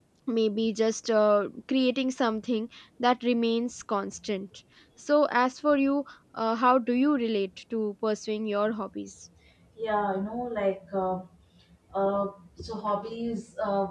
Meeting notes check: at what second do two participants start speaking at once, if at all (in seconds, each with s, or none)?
none